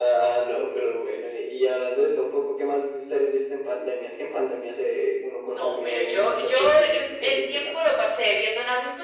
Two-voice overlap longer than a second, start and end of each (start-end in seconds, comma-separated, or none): 5.5-7.8